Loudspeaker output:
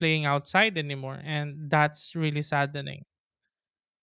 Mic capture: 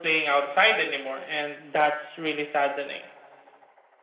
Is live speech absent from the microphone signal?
Yes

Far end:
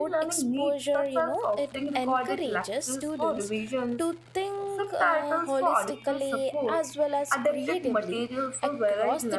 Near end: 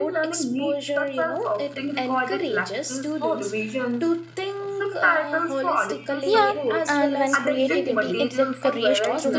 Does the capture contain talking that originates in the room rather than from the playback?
Yes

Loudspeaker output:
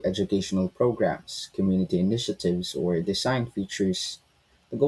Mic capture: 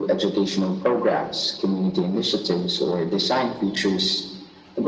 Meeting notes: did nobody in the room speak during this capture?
Yes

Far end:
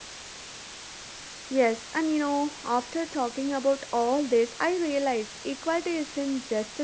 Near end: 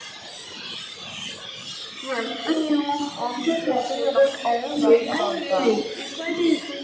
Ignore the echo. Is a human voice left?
Yes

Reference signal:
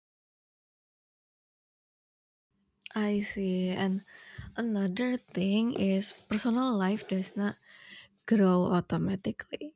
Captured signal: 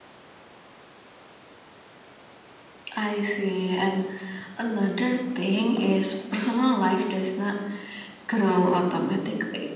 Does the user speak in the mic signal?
No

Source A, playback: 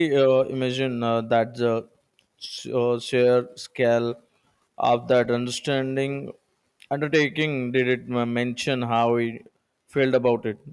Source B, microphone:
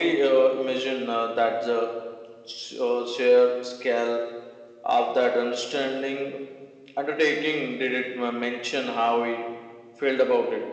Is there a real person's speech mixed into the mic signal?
No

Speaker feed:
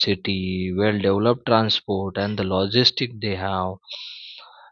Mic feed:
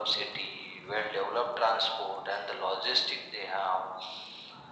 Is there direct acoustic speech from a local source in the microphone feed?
No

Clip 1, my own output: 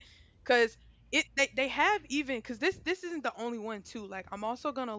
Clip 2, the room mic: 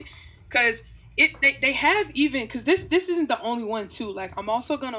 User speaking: No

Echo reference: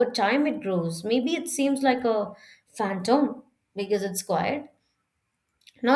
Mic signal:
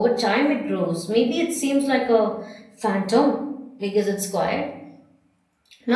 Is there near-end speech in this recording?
No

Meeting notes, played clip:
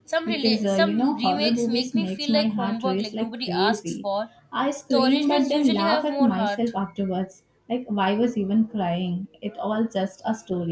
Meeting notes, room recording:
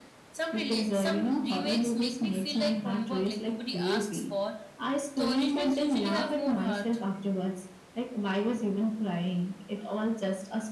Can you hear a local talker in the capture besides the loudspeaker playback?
No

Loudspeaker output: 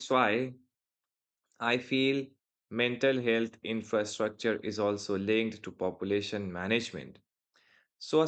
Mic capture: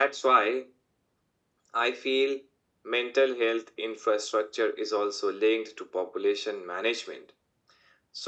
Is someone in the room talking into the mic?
No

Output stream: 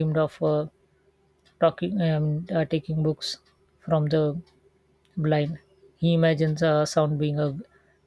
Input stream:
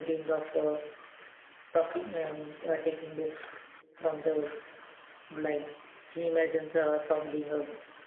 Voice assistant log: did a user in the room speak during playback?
No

